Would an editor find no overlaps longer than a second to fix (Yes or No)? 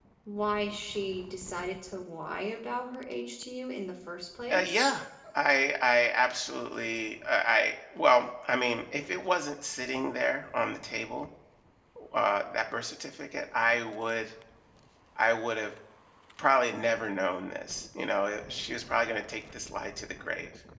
Yes